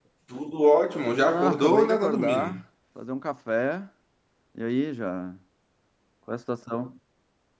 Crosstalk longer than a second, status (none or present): present